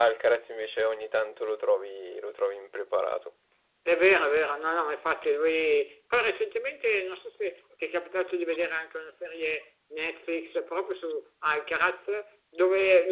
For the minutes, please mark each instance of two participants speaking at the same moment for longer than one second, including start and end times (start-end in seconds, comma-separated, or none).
none